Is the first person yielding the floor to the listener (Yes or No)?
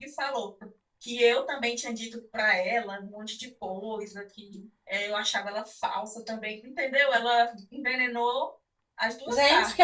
Yes